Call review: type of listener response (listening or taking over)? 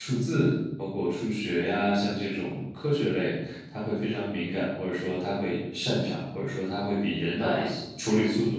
listening